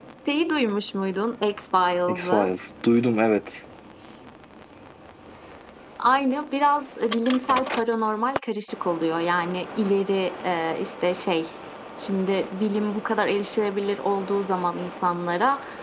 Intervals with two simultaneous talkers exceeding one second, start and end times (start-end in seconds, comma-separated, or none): none